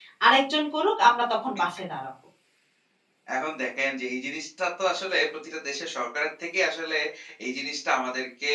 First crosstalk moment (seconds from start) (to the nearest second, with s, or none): none